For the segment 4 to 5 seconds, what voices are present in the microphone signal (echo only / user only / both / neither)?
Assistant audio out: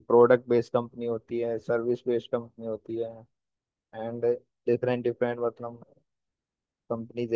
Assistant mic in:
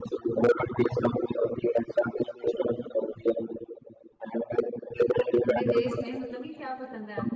echo only